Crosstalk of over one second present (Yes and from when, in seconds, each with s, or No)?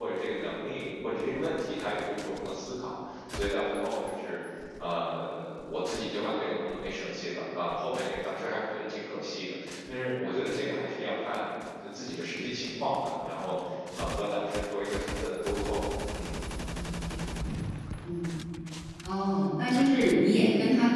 No